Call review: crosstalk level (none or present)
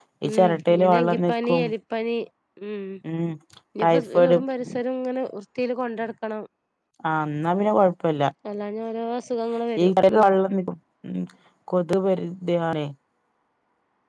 present